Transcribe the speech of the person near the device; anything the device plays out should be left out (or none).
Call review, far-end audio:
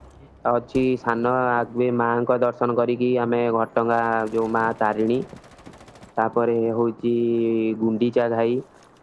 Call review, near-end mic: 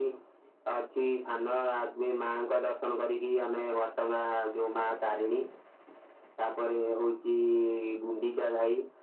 none